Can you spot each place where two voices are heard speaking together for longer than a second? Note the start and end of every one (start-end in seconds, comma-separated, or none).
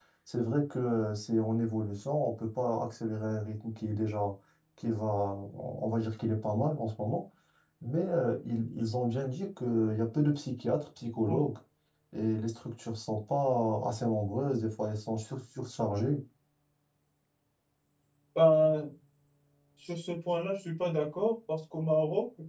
none